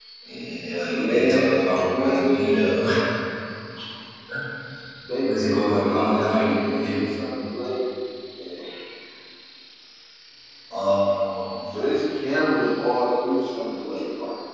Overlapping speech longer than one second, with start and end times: 0.9-2.6, 5.2-7.1

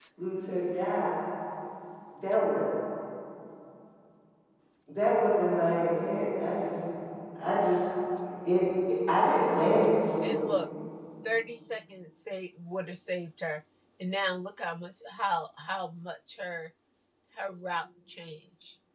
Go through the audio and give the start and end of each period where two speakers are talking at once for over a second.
none

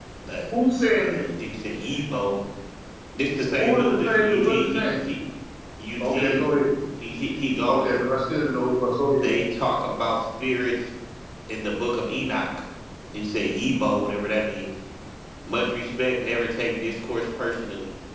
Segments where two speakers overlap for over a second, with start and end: 3.6-5.0

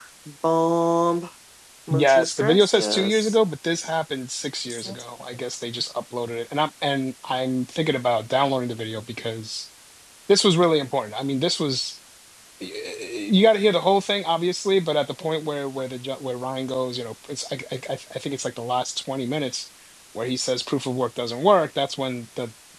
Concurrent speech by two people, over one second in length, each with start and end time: 1.9-3.4

